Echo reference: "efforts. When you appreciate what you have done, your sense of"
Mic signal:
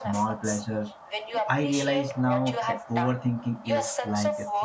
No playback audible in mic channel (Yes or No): No